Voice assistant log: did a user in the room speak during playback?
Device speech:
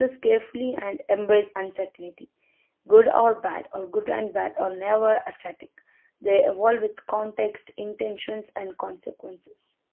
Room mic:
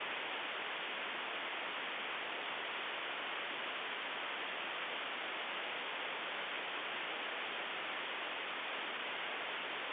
No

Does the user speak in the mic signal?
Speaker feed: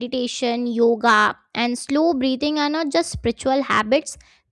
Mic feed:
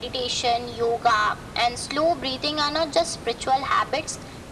No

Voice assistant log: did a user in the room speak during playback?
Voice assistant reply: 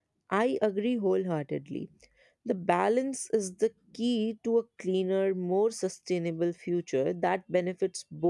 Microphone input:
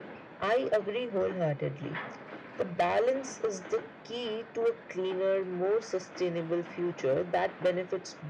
No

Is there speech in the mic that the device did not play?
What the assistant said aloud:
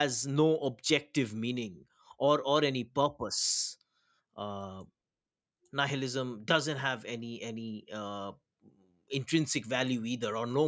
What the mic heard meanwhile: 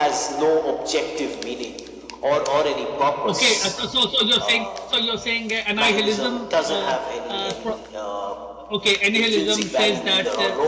Yes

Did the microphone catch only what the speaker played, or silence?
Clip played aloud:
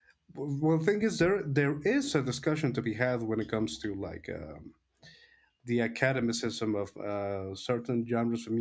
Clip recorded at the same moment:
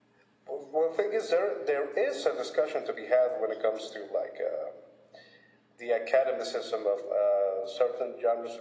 Yes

